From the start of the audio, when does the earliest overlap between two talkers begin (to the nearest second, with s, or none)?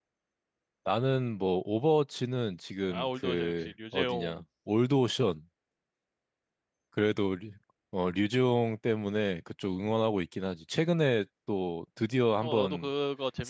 3 s